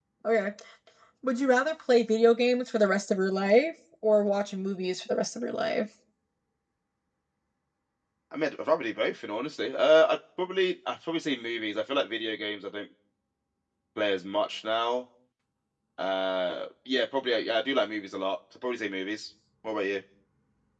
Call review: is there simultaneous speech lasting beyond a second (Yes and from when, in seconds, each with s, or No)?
No